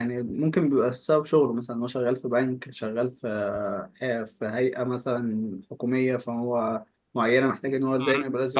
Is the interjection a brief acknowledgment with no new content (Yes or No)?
No